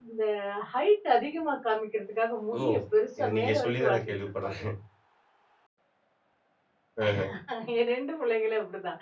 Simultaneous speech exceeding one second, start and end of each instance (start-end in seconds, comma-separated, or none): 3.2-4.6